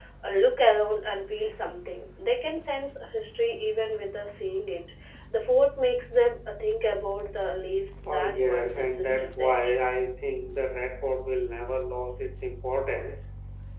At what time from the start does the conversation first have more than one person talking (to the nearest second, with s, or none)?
8 s